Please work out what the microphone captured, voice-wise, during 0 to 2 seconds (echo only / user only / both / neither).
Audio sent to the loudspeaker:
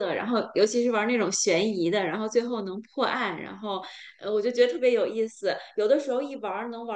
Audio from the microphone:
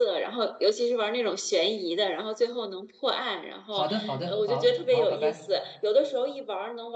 echo only